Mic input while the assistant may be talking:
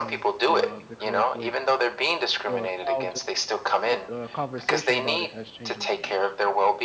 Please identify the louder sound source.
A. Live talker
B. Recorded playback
B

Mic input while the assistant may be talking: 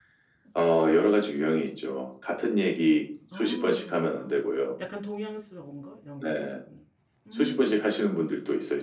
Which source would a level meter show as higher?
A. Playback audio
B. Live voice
A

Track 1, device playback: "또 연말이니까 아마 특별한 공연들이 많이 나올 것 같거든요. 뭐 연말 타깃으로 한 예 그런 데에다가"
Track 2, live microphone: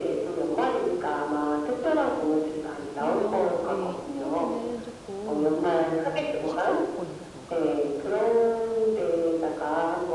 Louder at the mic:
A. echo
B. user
A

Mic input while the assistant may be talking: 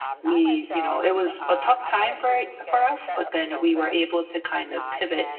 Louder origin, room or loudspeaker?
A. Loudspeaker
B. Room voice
B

